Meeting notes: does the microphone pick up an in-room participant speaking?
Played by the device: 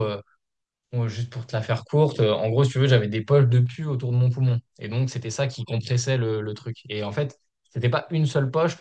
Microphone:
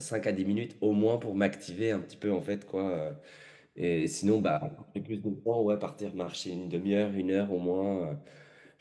Yes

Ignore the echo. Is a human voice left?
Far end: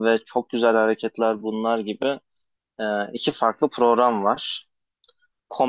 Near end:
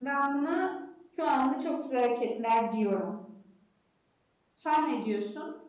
Yes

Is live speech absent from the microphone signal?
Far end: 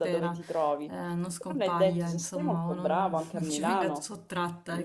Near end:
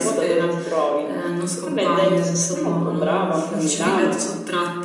Yes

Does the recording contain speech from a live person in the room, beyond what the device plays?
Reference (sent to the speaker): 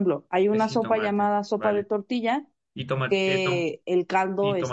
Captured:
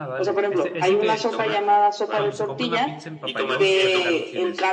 Yes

